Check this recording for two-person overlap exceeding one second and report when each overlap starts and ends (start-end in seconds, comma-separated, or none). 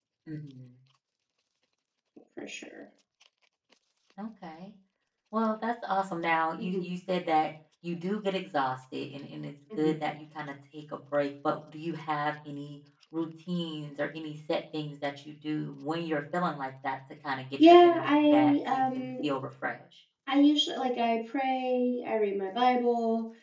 17.6-19.1